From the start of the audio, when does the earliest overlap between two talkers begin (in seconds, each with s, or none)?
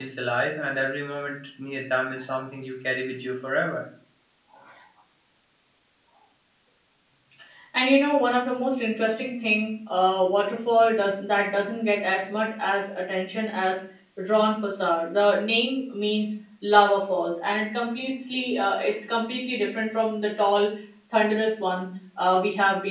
none